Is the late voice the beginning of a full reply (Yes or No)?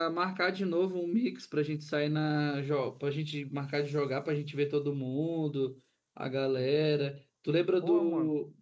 No